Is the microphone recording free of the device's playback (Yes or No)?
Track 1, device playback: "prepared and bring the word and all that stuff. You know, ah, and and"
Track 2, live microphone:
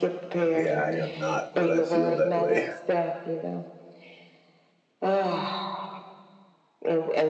No